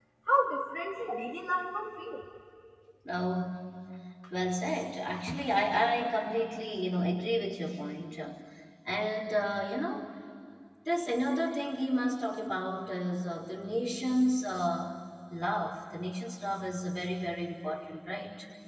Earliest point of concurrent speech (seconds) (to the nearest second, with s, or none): none